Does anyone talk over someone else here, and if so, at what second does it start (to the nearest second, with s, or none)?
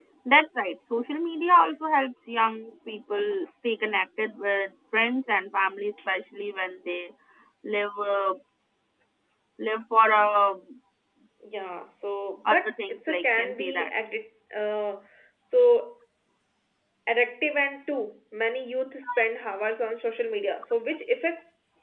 12 s